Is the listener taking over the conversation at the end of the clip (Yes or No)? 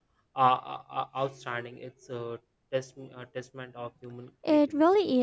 Yes